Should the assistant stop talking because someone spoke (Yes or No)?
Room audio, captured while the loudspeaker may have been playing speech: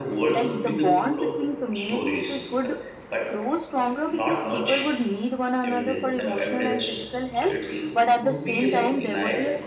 Yes